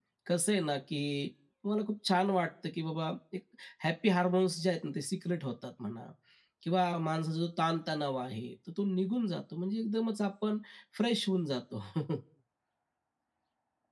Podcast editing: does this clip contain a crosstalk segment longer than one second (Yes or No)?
No